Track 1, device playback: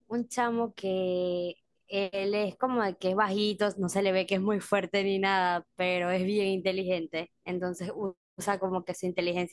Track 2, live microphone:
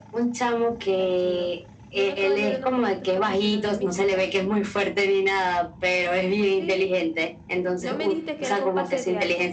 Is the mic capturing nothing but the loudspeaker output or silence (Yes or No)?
No